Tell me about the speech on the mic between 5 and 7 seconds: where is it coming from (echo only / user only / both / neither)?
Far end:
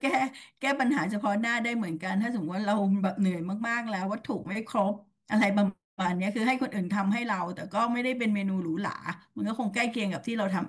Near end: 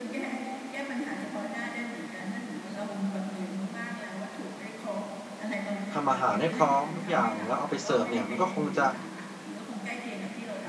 both